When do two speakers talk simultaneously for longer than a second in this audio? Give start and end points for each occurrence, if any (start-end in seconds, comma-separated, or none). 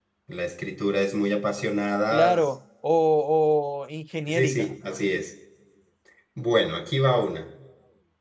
none